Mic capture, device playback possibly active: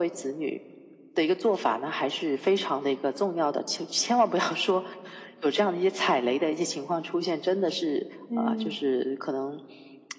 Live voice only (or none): 嗯，